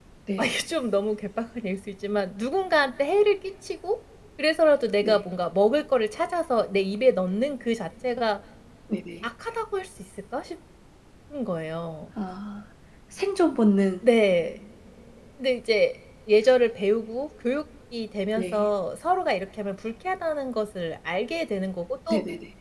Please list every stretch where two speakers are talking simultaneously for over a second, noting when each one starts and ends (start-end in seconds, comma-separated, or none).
none